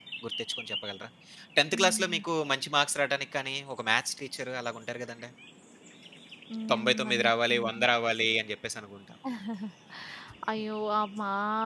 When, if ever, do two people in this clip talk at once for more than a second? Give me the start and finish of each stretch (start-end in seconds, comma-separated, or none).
6.7-7.9